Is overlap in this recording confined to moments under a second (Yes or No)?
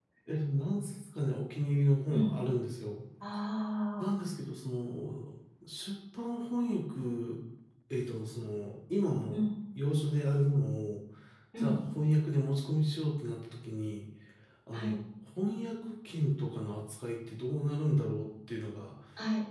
Yes